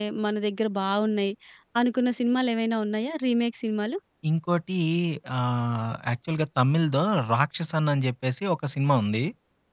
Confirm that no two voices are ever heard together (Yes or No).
Yes